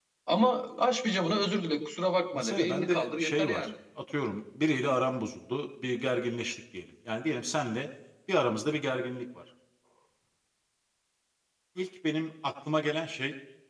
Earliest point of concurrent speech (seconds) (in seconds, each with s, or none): 2.4 s